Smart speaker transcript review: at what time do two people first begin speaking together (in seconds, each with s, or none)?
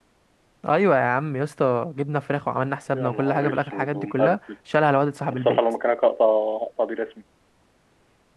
2.9 s